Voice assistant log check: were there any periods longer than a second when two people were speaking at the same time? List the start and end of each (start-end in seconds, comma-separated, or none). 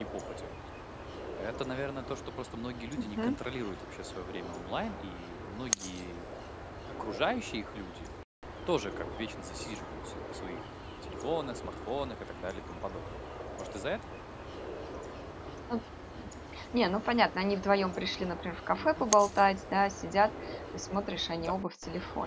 none